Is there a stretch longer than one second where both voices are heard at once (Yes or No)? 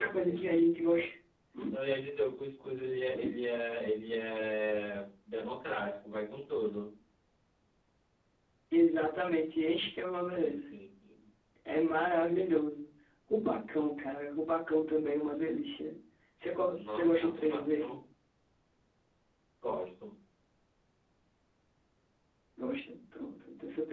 Yes